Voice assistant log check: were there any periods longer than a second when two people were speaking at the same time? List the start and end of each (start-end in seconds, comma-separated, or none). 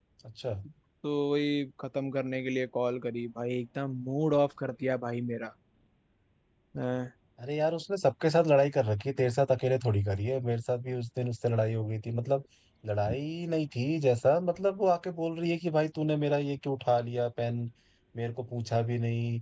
none